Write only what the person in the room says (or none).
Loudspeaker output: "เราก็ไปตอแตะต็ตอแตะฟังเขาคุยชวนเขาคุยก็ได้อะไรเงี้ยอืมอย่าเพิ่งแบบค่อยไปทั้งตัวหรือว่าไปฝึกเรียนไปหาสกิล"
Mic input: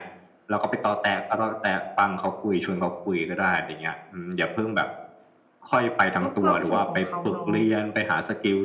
ก็ความสุขของเขาเนาะ